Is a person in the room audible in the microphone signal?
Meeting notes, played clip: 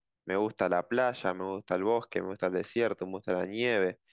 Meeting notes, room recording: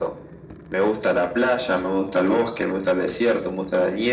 No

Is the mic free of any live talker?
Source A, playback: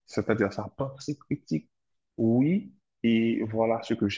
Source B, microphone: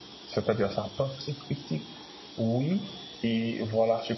Yes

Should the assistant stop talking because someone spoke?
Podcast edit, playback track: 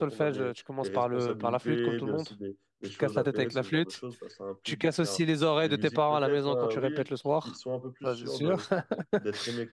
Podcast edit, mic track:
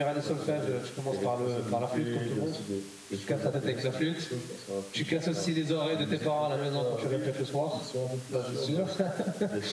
No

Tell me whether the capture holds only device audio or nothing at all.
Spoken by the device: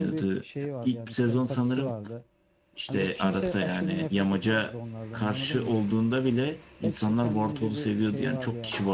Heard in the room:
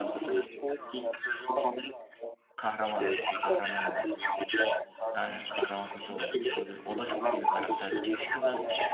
No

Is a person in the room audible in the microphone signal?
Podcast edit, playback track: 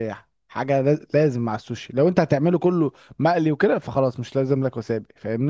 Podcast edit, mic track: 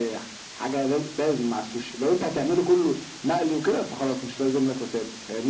No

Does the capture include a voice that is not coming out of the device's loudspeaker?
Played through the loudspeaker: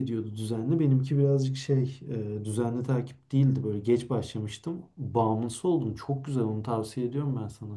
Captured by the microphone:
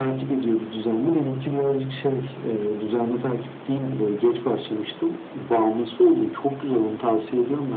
No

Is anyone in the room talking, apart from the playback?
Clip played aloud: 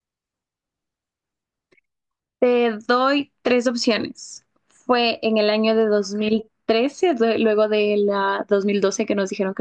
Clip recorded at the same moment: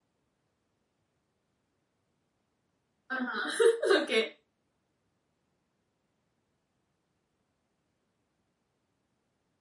Yes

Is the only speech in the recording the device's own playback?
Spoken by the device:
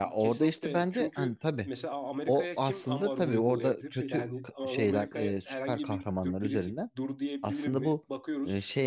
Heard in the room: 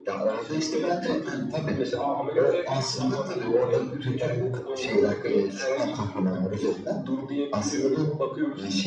Yes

